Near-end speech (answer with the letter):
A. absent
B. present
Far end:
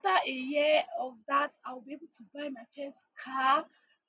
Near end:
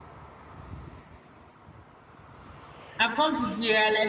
B